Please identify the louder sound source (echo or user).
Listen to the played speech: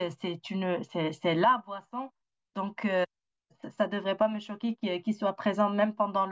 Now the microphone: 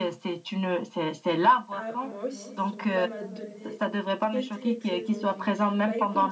echo